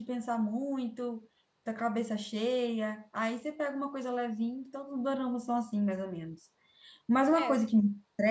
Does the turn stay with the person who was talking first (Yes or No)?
Yes